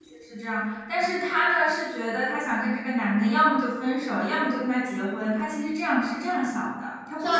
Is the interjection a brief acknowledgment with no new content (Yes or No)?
No